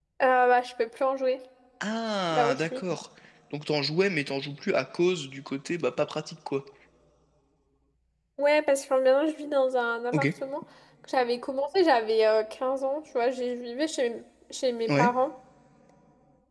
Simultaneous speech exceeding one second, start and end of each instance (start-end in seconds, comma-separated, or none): none